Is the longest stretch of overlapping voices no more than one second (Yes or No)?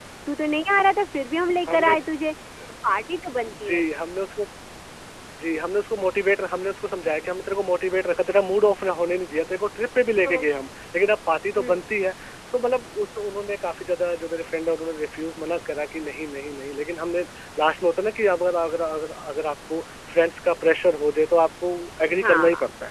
Yes